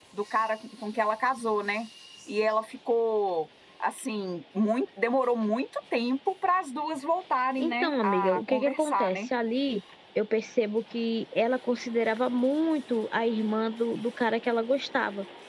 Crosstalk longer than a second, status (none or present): present